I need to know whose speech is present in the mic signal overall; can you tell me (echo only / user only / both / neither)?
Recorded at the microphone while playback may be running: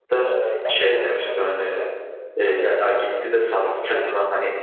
both